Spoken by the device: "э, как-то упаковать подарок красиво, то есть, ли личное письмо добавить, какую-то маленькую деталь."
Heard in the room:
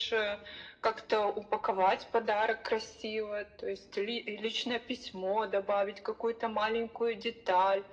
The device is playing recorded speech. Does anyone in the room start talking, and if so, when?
none

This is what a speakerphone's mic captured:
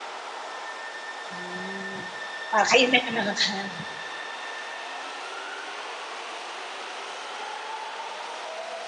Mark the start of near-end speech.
1 s

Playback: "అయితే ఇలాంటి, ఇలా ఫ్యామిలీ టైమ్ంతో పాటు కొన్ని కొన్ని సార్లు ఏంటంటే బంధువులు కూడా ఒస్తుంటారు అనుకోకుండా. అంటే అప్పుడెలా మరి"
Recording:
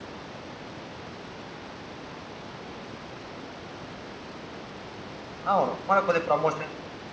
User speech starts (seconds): 6 s

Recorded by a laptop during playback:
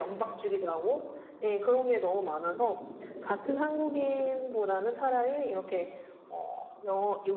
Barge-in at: none

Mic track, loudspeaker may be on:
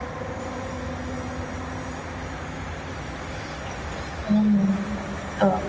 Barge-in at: 4 s

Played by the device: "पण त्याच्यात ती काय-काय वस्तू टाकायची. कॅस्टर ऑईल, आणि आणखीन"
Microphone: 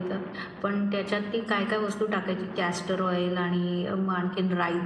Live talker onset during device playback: none

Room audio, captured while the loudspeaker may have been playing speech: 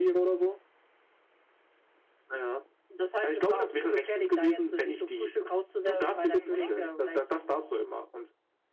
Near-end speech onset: 6 s

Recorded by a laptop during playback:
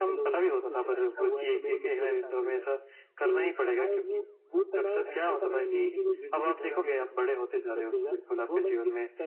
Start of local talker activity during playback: none

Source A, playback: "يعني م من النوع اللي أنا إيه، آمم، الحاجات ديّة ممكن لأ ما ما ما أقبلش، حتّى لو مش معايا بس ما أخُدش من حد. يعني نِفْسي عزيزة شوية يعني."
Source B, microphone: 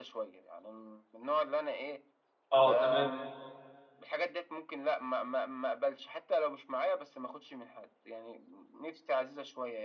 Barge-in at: 3 s

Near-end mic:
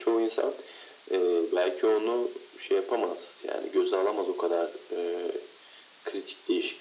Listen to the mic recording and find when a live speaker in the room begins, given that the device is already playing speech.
none

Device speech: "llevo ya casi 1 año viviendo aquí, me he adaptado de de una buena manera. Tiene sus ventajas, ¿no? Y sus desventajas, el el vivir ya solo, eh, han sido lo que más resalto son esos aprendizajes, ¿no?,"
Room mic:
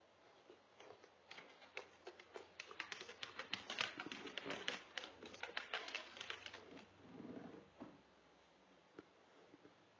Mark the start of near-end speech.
none

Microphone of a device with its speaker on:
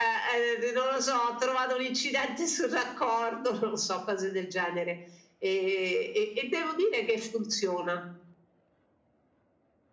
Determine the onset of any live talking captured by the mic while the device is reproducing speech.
none

